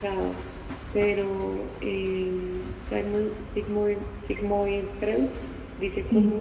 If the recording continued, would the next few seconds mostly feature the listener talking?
No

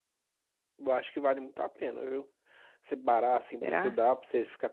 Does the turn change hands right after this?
No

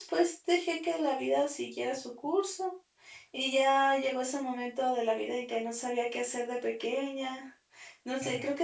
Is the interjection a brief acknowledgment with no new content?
Yes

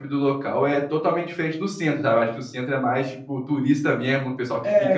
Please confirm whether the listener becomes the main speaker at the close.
Yes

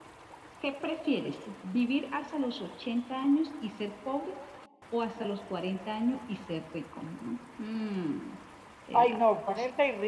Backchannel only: No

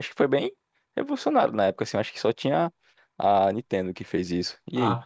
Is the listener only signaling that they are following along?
No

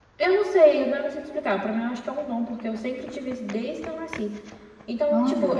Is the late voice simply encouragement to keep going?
Yes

